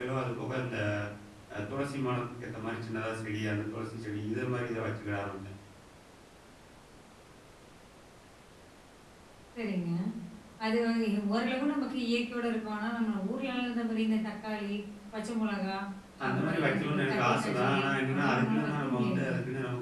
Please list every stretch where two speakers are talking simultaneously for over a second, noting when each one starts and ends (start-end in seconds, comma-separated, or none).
16.3-19.3